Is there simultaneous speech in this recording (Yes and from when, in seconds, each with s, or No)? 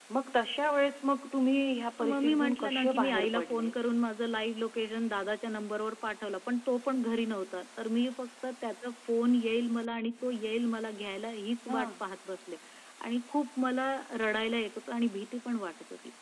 Yes, from 2.0 s